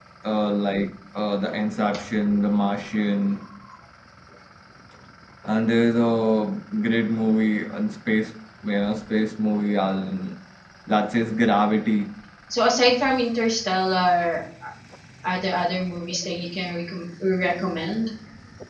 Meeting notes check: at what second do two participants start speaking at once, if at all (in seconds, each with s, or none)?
none